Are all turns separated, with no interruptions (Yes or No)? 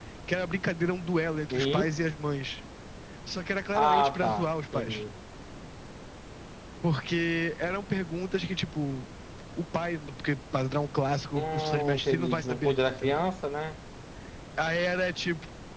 No